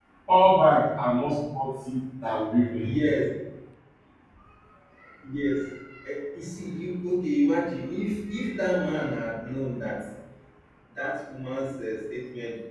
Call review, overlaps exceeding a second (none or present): none